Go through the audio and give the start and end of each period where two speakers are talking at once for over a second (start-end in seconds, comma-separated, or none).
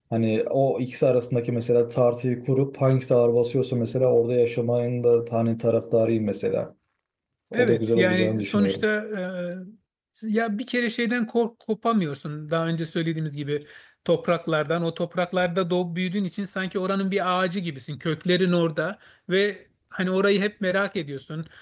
7.5-8.8